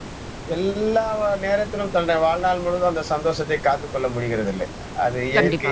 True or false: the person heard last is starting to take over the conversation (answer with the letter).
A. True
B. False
B